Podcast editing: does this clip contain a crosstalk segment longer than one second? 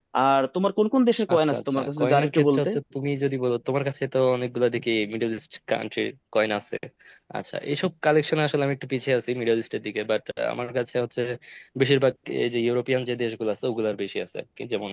Yes, from 1.3 s

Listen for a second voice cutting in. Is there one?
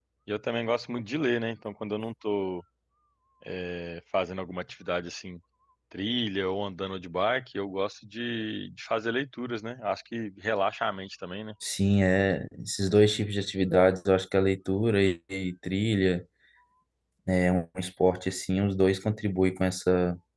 No

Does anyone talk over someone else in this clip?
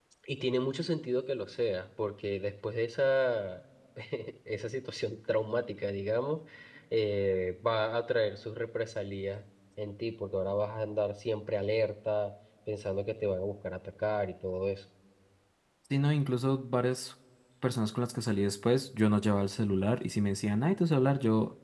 No

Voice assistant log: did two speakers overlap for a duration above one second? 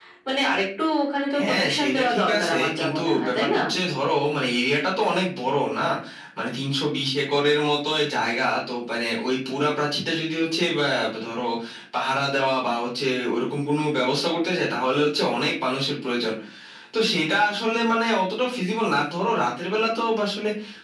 Yes, from 1.3 s

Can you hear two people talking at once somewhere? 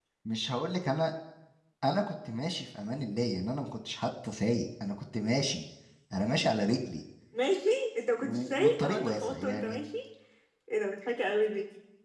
Yes, from 8.2 s

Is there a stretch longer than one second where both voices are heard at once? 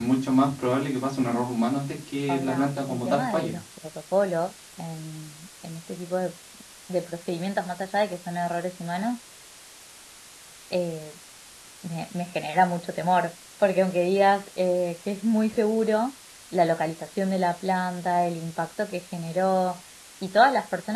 Yes, from 2.3 s

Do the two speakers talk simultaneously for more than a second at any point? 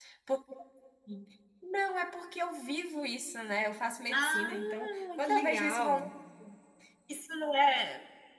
Yes, from 4.1 s

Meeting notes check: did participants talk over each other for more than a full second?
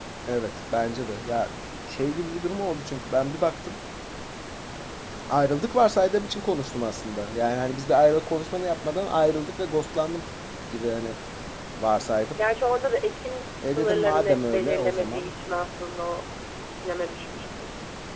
Yes, from 13.6 s

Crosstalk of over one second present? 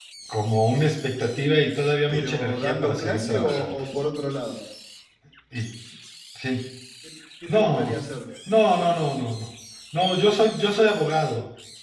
Yes, from 2.1 s

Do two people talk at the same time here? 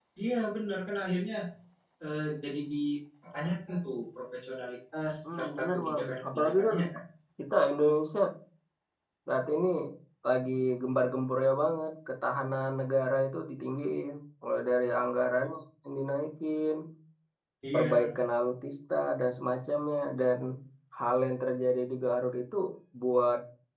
Yes, from 5.2 s

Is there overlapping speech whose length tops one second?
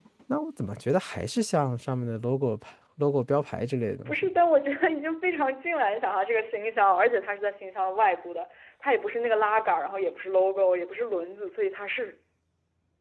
No

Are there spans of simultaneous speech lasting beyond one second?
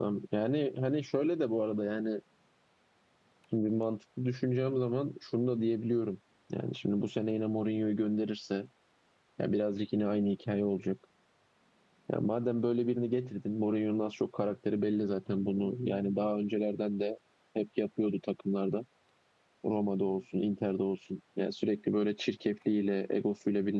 No

